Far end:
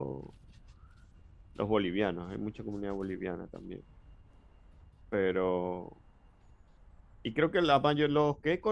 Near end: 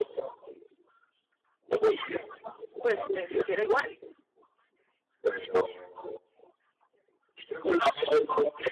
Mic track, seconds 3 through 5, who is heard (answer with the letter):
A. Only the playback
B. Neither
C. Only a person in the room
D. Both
D